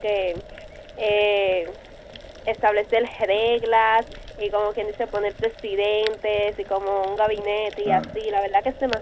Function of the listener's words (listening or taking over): listening